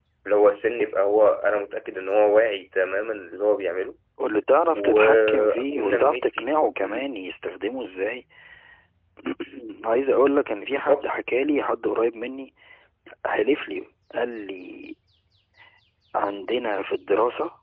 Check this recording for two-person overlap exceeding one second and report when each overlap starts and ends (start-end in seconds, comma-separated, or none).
4.7-7.1